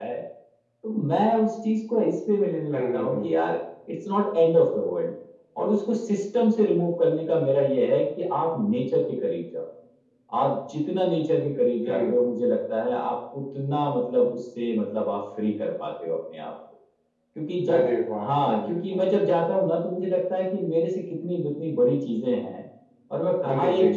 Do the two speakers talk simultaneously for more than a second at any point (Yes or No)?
Yes